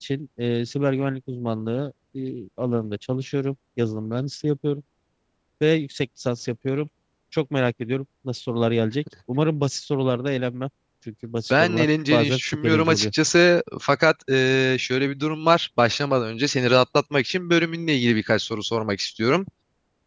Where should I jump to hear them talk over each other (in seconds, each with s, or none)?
11.5 s